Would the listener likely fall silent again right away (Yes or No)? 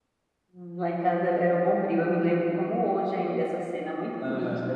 Yes